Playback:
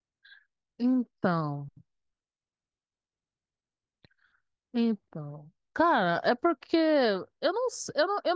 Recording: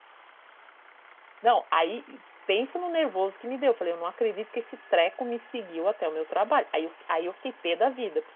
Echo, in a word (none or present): none